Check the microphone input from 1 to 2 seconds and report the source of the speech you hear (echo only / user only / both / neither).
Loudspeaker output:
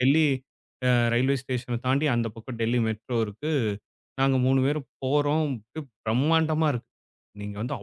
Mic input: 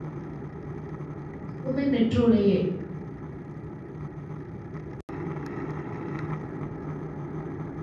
user only